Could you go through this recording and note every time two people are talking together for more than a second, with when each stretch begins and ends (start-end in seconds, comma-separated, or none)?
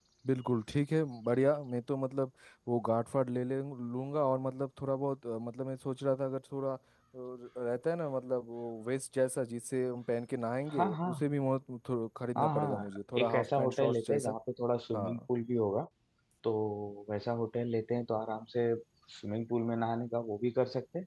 12.3-14.3